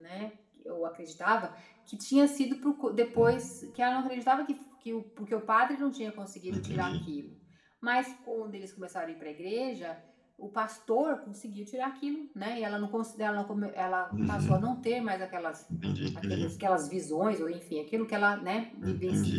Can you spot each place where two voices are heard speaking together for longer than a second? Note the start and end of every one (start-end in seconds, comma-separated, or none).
none